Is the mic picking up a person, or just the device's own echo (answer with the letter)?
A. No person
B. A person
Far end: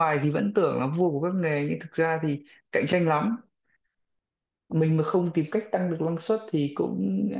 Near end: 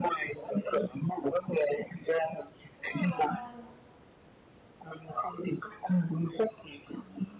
B